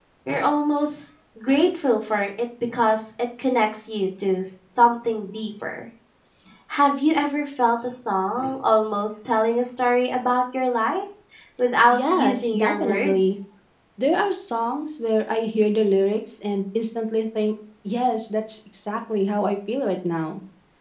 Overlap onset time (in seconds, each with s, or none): 11.9 s